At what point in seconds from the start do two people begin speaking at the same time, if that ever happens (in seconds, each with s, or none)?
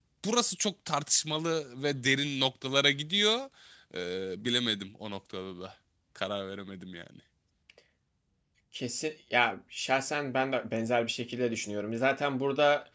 none